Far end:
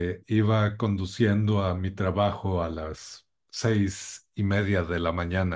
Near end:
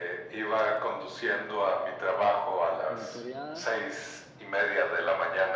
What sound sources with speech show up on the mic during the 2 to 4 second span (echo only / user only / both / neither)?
both